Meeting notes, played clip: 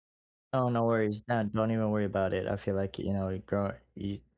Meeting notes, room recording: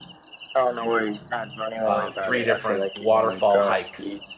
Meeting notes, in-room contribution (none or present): present